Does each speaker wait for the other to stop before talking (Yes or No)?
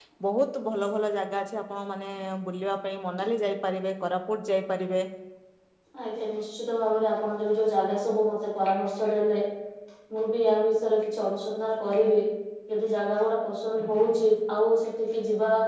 Yes